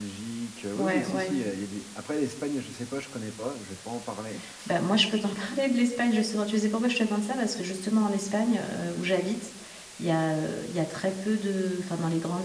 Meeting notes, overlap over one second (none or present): none